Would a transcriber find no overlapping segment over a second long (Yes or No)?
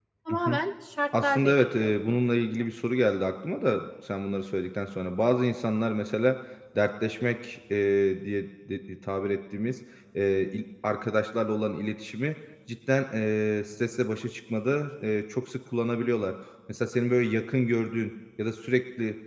No